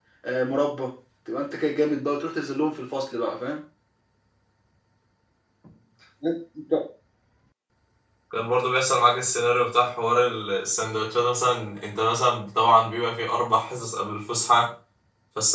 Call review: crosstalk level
none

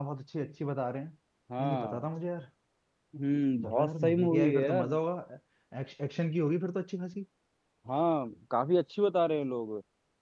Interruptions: present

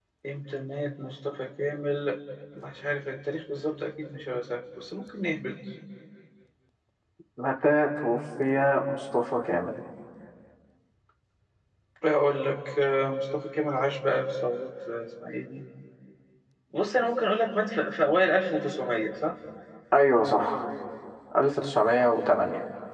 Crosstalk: none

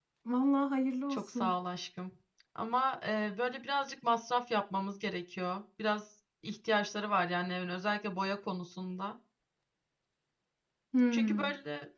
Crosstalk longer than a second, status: none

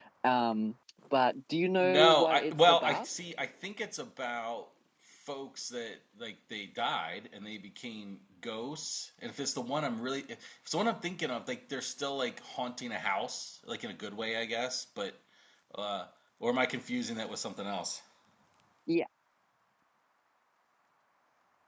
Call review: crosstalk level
present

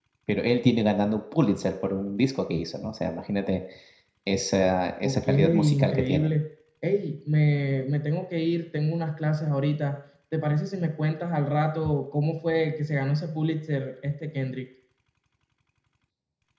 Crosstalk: present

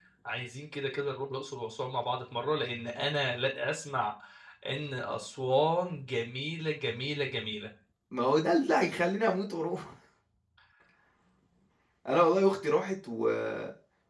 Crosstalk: none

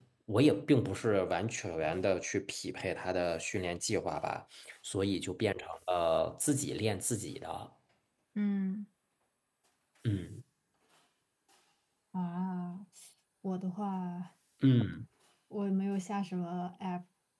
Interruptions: none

